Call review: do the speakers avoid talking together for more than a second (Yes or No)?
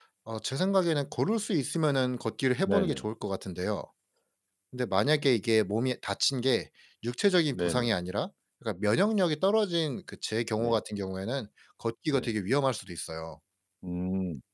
Yes